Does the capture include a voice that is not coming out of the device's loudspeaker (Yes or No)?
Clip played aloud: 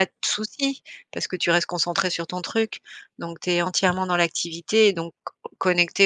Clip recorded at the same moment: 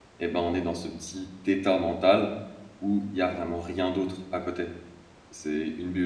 Yes